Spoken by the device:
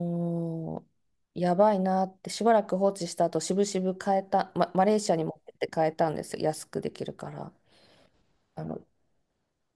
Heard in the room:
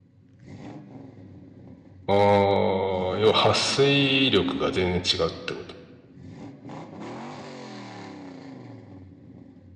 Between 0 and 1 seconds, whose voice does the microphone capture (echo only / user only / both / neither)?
neither